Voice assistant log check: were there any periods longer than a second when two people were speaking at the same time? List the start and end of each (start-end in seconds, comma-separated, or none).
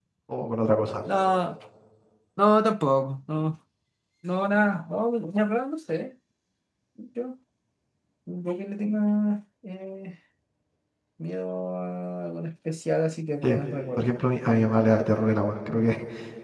none